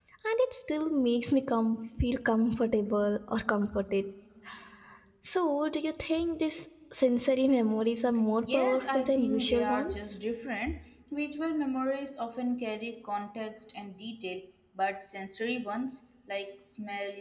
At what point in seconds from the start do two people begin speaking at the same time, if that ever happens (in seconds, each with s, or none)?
8.4 s